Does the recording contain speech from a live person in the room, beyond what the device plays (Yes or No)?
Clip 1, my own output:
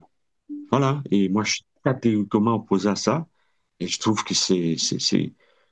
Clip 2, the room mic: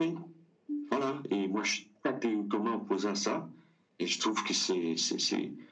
No